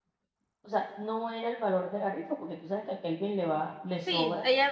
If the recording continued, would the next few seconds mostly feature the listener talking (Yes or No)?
Yes